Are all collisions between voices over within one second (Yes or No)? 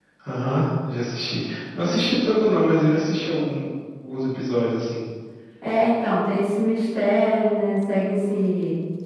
Yes